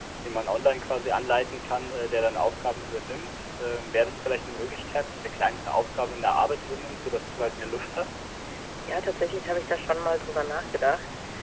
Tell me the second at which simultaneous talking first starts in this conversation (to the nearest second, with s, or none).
none